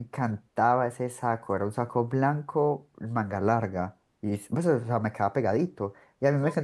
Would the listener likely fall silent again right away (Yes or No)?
Yes